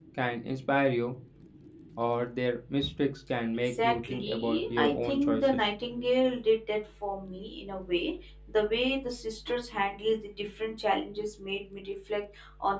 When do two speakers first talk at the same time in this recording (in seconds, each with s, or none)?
3.7 s